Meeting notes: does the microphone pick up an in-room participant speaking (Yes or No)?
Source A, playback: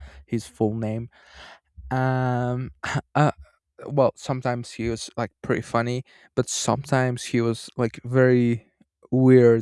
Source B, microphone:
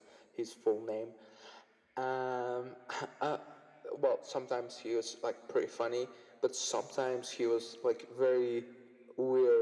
No